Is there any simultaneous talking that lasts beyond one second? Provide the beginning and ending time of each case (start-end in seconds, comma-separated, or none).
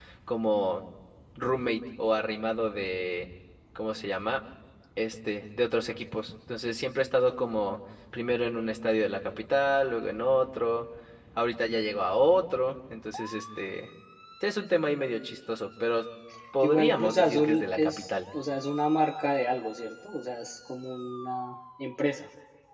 16.6-18.0